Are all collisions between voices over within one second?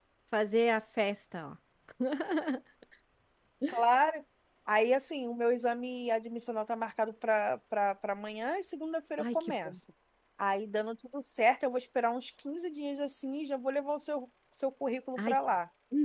Yes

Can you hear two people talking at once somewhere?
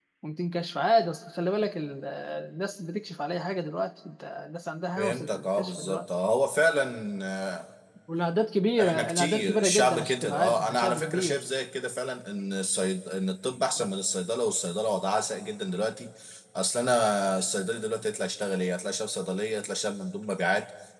Yes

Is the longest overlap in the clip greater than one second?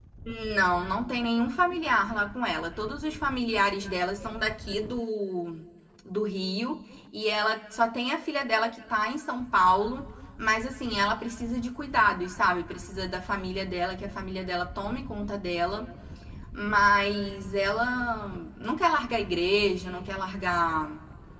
No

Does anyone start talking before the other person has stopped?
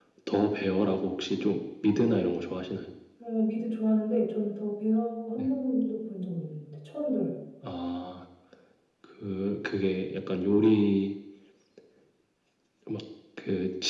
No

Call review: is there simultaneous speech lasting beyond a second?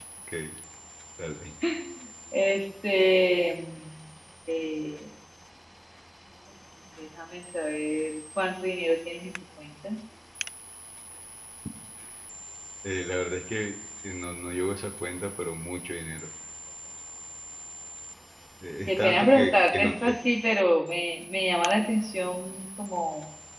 Yes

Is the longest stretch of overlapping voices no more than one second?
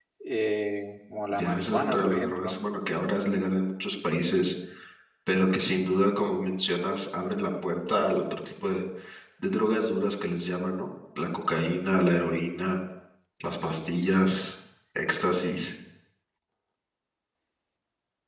No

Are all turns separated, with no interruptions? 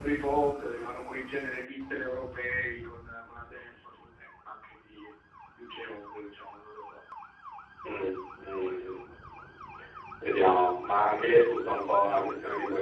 Yes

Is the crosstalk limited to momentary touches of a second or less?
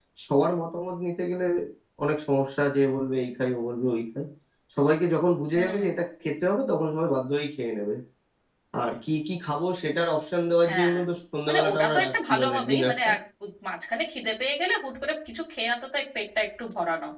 No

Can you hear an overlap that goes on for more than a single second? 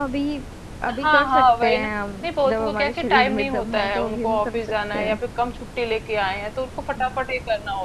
Yes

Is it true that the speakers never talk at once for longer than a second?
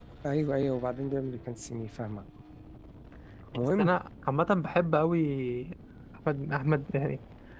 Yes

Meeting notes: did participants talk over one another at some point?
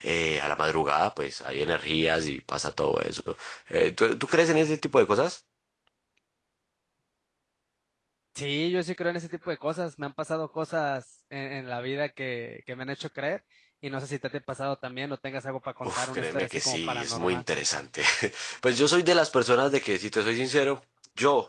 Yes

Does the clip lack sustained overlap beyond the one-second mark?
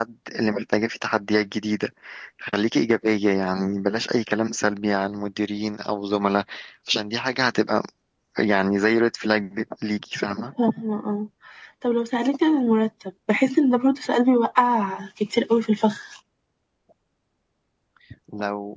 Yes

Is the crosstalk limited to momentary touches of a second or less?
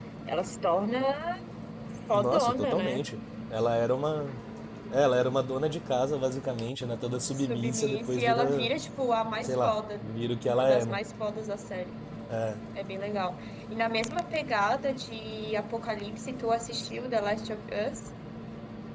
No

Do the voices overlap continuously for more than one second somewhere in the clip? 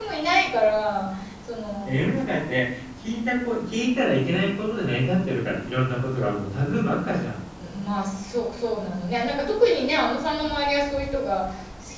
No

